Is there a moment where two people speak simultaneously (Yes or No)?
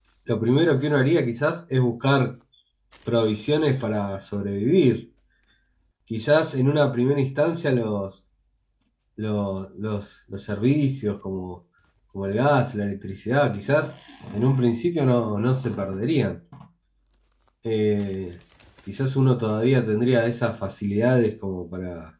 No